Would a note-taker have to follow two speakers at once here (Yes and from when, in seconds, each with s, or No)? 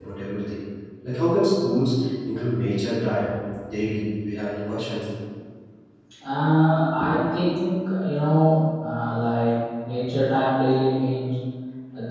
No